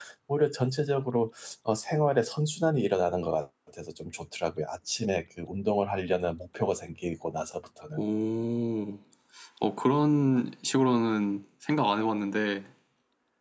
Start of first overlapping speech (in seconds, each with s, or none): none